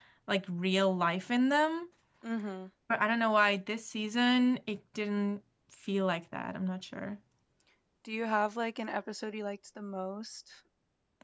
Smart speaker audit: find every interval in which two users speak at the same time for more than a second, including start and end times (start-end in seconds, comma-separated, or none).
none